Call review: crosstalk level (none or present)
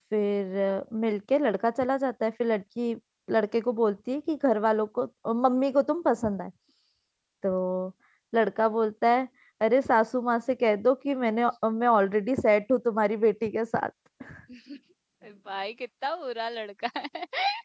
none